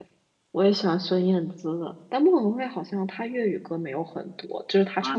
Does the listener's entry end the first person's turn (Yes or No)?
Yes